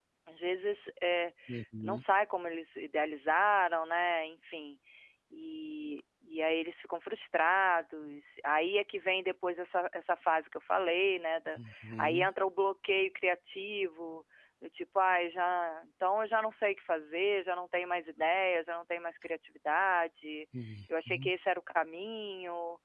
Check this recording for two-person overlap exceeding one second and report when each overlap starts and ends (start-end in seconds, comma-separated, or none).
none